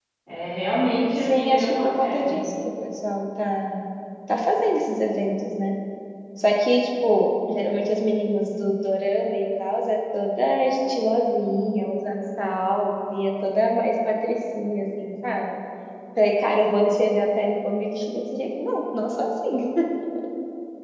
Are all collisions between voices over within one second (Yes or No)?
No